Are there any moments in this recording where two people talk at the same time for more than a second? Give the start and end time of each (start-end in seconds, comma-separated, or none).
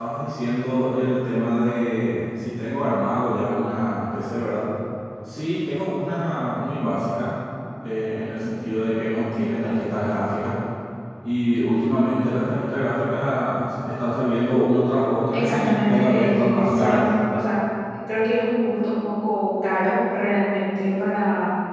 15.3-17.0